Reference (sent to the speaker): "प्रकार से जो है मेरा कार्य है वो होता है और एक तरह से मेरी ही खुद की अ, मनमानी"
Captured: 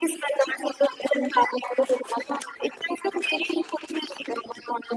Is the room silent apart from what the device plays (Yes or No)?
Yes